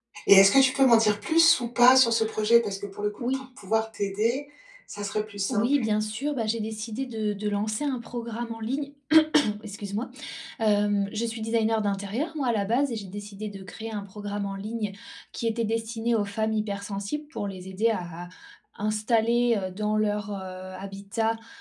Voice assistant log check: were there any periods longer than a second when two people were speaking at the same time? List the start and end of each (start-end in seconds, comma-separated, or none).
none